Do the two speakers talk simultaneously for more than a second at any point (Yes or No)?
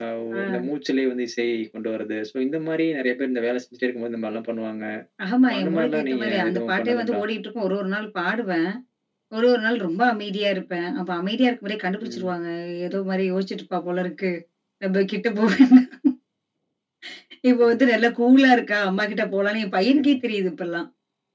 Yes